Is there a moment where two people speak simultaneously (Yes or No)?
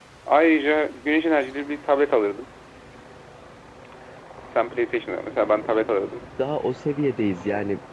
No